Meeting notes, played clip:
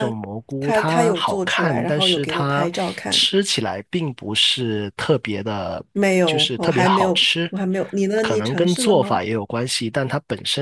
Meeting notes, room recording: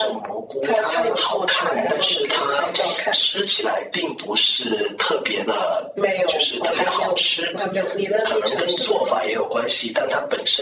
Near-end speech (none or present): none